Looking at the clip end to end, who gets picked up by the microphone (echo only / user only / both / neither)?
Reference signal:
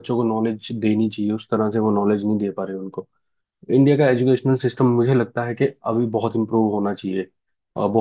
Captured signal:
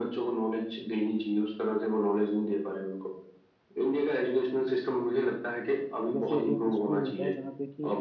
both